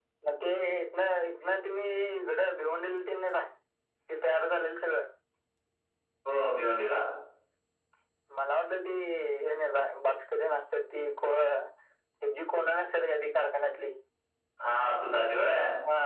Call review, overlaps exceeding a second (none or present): none